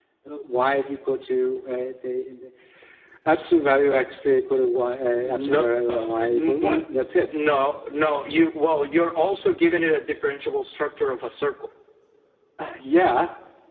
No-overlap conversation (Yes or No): No